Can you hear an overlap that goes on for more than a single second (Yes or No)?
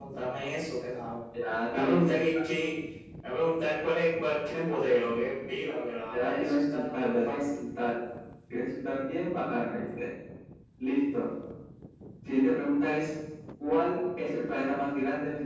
Yes